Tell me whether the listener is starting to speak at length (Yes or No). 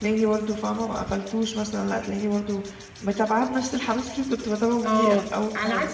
Yes